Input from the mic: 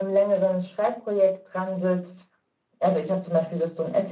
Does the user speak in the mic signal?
No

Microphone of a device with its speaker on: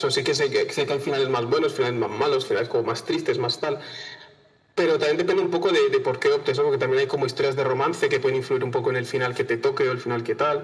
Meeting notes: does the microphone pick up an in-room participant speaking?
No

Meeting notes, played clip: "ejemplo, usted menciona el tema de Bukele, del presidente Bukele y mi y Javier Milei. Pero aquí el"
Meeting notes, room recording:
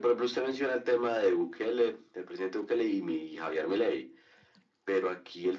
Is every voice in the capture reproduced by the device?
Yes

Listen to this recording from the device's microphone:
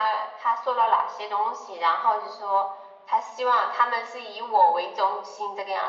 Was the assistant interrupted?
No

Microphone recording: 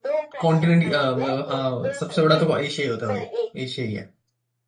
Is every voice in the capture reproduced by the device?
No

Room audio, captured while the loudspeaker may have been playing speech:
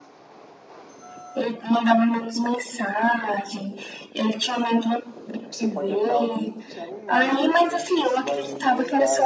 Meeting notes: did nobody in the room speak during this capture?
No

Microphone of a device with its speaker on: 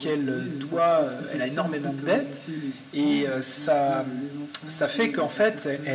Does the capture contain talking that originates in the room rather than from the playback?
No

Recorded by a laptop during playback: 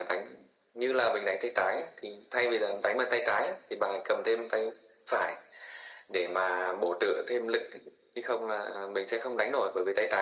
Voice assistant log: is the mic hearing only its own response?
Yes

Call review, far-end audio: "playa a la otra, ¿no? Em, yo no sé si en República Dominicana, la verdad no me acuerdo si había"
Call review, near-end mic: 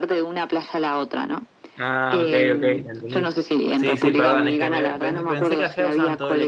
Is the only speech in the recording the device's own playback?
No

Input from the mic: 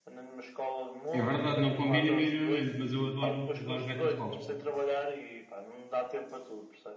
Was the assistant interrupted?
Yes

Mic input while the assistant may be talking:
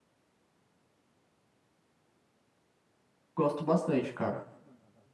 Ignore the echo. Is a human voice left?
Yes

